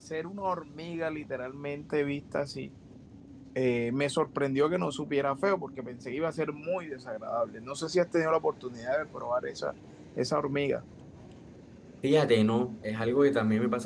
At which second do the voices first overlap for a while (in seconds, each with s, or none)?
none